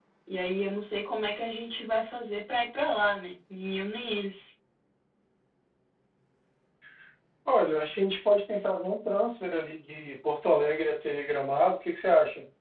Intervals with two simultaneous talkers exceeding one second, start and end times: none

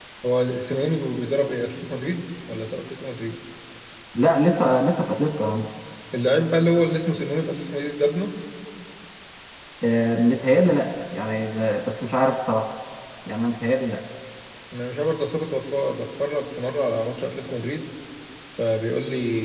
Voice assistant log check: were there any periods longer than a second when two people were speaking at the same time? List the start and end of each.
none

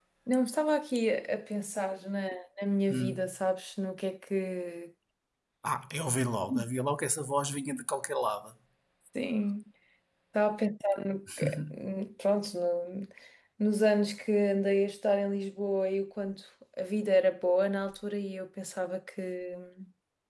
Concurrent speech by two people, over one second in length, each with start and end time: none

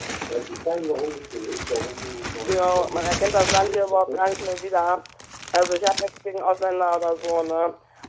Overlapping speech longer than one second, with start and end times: 2.5-4.3

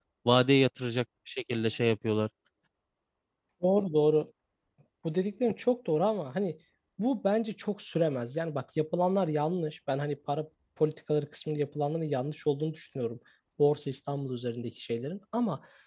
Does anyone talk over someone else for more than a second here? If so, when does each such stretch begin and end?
none

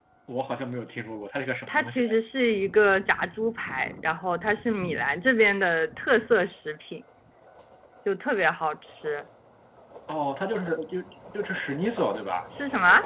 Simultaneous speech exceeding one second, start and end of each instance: none

